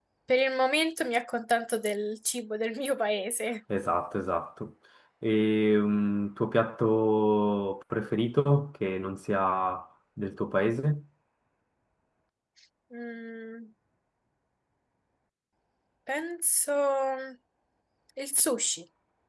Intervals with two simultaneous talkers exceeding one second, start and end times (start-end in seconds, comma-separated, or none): none